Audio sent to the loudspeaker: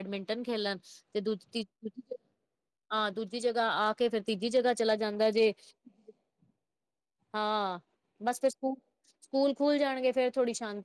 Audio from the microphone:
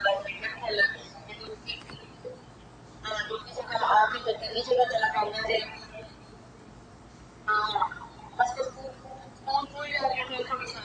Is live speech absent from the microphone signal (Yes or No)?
Yes